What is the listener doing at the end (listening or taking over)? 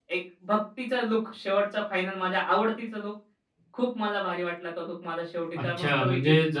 taking over